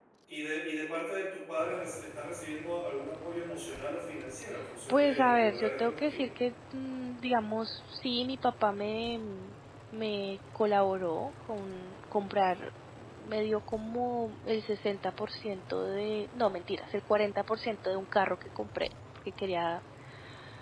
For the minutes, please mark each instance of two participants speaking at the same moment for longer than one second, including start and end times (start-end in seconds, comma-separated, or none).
4.9-6.2